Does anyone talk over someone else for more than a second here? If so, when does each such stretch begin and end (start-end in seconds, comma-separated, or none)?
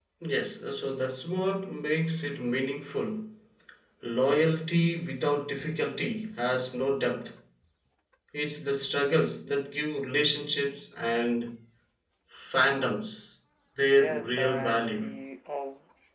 13.9-15.1